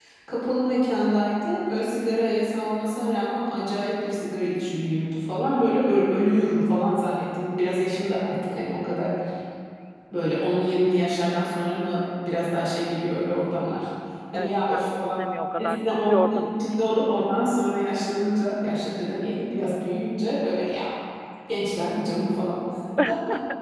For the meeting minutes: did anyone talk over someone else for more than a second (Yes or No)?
Yes